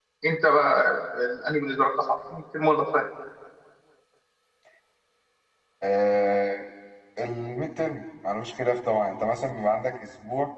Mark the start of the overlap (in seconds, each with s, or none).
none